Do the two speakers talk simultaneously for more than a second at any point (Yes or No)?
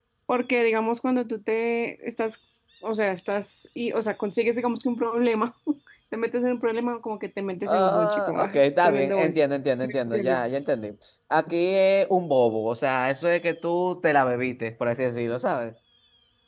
Yes